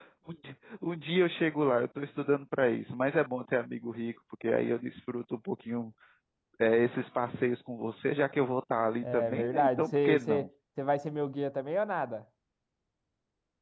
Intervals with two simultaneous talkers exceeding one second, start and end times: 9.0-10.5

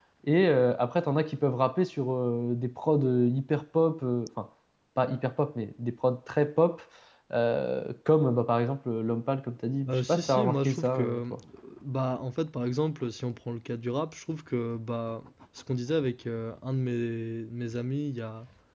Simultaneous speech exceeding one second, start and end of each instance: 9.9-11.3

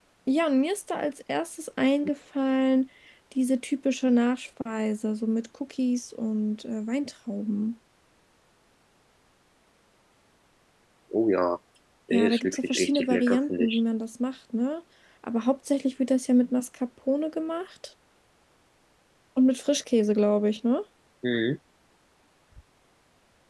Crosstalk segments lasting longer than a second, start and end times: 12.1-13.8

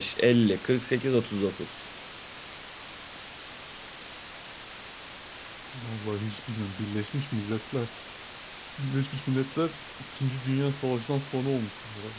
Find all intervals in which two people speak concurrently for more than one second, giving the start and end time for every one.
none

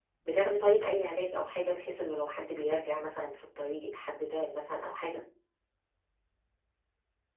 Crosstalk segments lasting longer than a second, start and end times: none

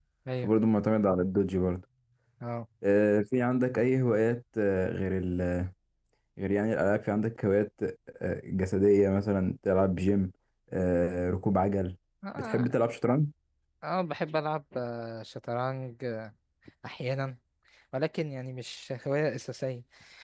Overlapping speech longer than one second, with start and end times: none

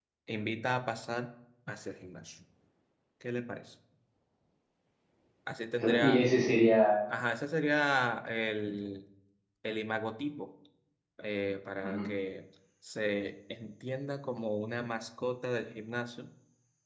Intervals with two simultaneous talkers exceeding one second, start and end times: none

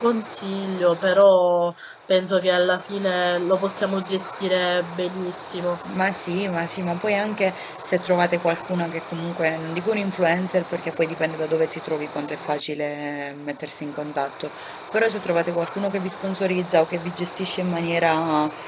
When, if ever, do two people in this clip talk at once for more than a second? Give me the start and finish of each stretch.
none

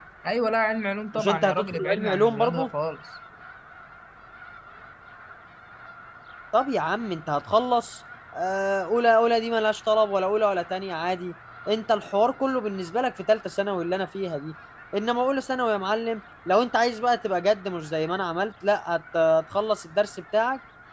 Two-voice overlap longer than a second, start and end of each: 1.1-2.7

